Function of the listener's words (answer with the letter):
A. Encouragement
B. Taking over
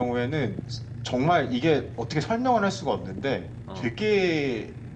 A